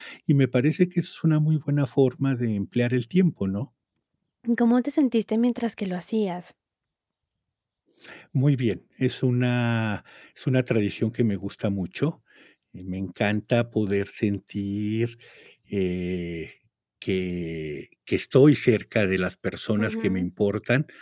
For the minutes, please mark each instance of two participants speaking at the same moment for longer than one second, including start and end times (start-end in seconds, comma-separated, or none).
none